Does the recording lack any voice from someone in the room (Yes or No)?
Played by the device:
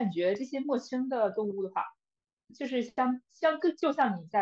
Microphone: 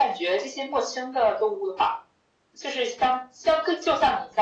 Yes